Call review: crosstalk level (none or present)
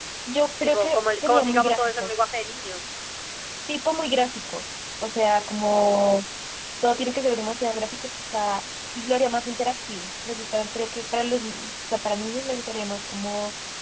present